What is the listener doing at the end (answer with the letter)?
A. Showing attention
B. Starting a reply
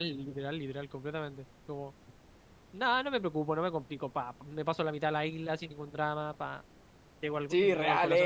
B